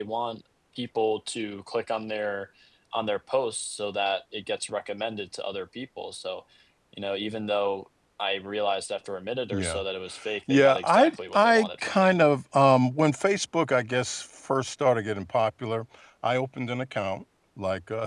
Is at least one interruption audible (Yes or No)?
Yes